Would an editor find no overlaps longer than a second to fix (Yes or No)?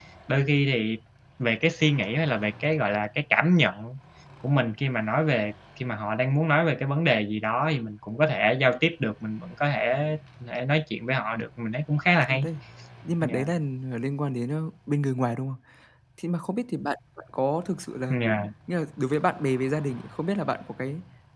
Yes